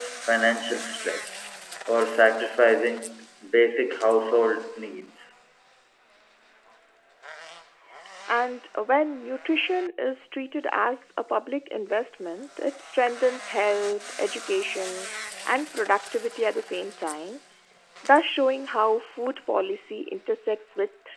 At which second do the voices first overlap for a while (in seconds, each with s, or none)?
none